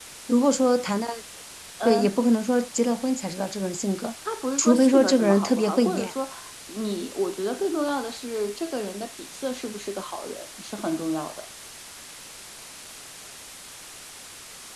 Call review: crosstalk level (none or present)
present